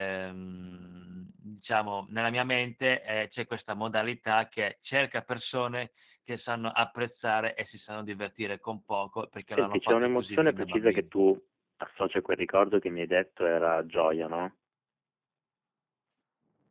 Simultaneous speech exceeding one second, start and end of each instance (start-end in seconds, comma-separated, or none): 9.5-11.0